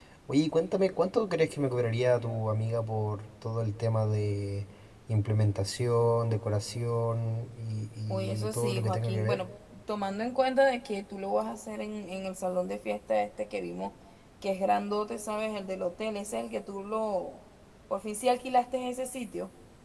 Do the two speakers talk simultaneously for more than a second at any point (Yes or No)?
Yes